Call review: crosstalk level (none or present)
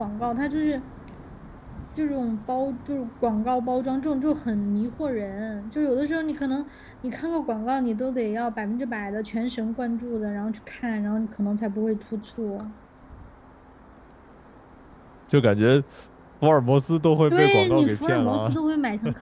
present